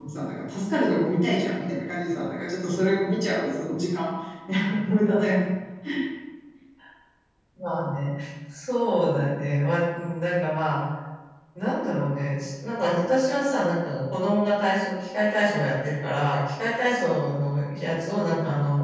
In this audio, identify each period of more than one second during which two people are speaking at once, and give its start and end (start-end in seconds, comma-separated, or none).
none